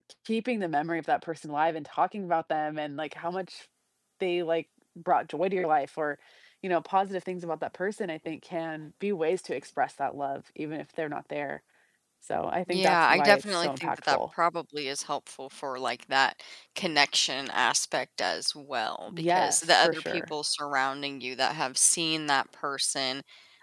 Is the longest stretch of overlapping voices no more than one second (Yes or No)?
No